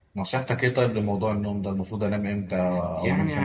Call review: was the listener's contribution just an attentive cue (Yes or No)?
No